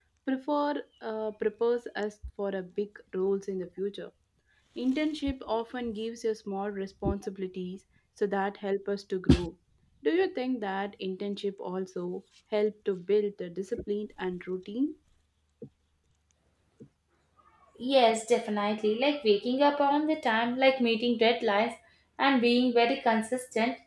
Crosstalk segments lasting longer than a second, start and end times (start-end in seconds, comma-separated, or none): none